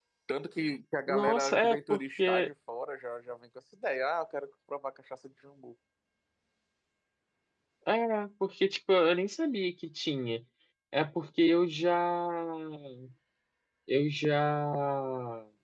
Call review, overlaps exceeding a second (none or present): present